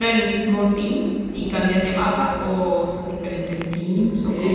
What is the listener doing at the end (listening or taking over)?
taking over